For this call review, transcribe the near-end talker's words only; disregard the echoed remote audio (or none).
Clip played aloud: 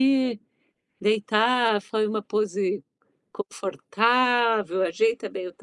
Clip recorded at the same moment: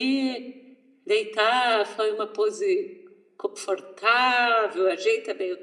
none